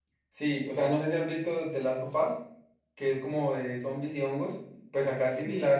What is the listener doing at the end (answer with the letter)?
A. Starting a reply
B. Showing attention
B